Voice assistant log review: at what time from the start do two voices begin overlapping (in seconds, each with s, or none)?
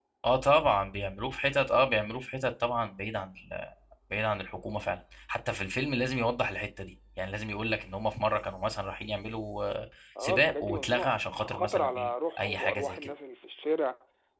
10.2 s